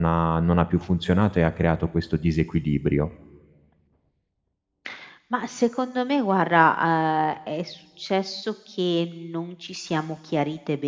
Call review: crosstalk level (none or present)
none